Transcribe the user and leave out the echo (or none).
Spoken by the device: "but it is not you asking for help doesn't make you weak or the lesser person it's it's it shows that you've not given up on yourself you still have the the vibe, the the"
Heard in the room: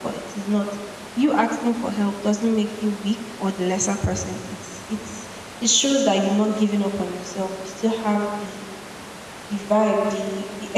none